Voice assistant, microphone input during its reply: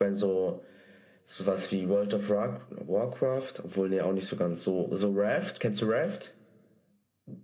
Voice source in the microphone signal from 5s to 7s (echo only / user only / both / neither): echo only